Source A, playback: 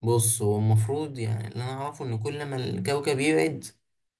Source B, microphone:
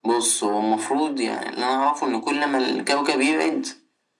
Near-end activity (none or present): none